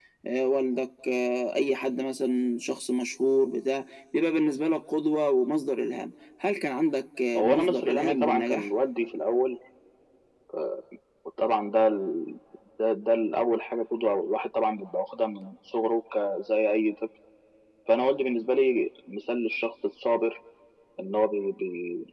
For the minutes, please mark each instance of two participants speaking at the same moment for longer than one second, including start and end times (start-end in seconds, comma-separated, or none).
7.3-8.7